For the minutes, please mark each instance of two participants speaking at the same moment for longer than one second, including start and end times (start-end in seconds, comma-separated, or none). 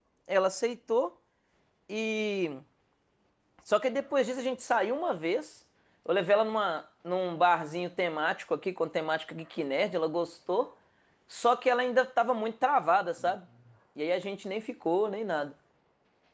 none